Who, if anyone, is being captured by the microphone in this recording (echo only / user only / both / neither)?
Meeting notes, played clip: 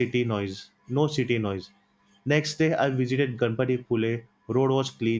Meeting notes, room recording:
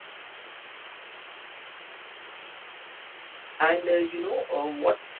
user only